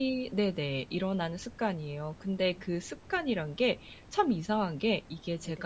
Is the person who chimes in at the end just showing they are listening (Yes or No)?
Yes